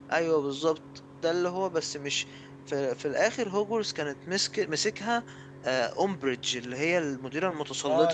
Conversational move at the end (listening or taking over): taking over